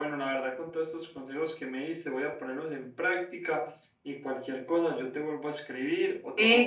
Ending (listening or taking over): taking over